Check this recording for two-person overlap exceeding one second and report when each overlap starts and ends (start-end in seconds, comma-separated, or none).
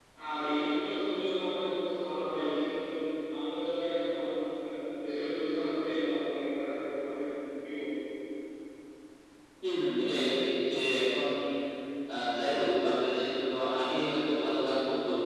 none